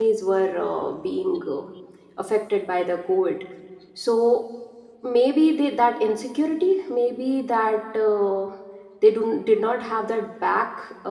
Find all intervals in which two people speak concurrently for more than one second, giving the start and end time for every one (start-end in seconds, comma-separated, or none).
none